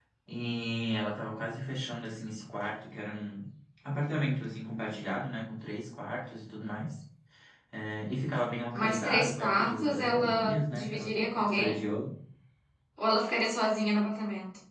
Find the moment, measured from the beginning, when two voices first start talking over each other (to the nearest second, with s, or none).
9 s